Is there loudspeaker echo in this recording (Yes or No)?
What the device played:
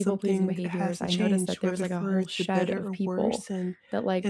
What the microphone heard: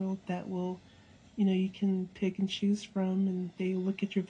No